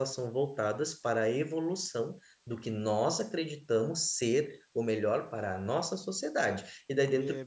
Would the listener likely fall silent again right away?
Yes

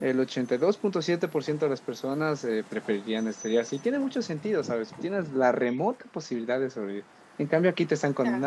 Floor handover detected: No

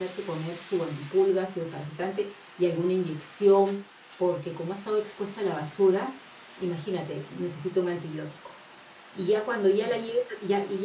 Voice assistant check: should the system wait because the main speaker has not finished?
Yes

